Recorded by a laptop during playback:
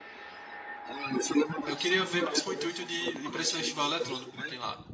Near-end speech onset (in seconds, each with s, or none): 1.6 s